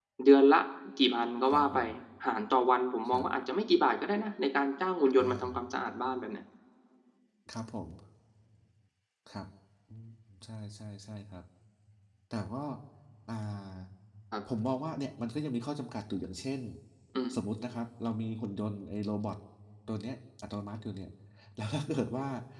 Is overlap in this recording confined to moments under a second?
Yes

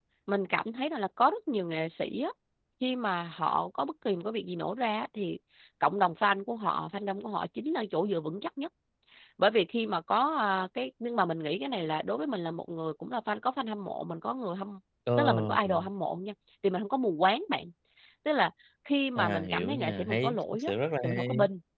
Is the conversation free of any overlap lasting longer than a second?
No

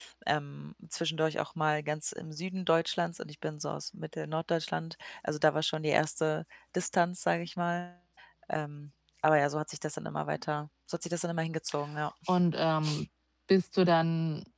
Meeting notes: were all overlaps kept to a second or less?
Yes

